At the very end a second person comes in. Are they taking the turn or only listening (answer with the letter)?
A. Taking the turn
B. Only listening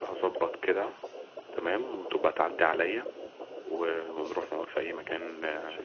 A